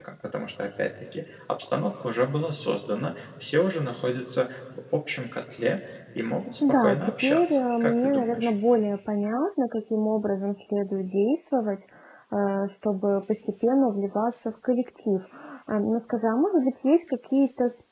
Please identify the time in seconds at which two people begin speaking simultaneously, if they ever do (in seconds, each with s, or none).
6.6 s